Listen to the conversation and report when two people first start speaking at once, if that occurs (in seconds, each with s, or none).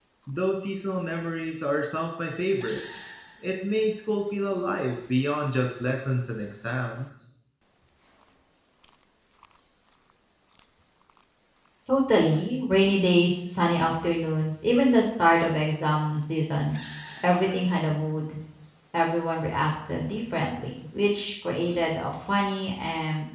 none